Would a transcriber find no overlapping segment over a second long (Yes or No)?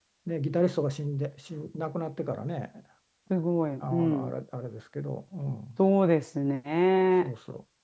Yes